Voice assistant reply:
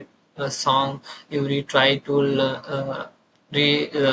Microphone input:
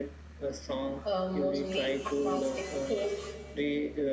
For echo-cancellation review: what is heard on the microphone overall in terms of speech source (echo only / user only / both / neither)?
both